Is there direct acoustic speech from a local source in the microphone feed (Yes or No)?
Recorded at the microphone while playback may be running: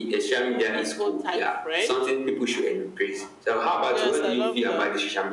Yes